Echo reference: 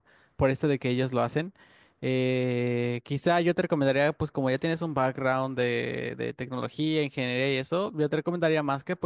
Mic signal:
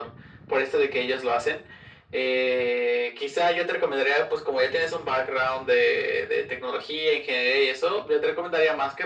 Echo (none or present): present